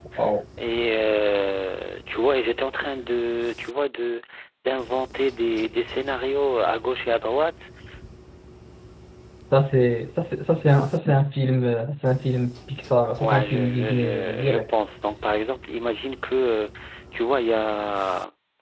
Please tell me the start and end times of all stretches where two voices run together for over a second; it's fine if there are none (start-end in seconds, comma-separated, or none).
13.2-14.7